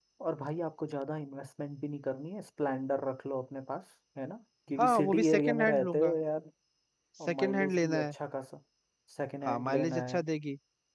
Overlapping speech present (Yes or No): Yes